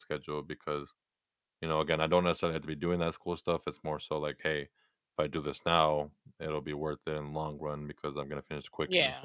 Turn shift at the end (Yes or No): Yes